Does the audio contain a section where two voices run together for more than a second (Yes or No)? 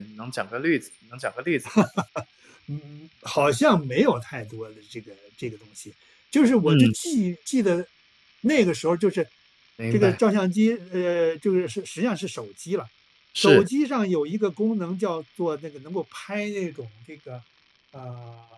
No